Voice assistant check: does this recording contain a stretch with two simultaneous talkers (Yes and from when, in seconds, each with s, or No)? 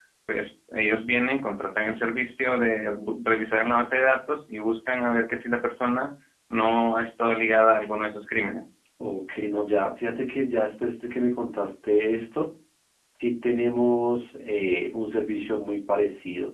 No